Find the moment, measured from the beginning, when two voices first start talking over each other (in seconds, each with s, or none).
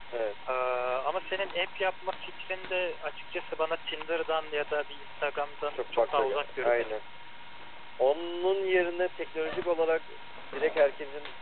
5.7 s